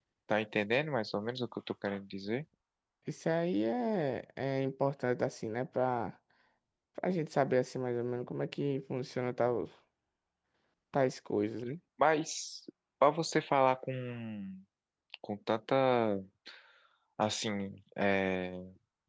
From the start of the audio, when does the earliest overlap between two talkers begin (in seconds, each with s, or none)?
none